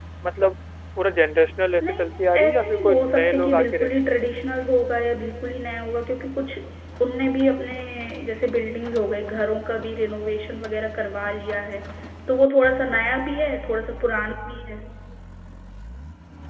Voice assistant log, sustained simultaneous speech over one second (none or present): present